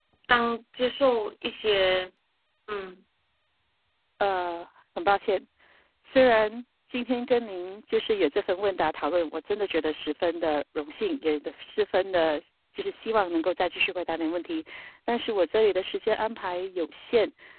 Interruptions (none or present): none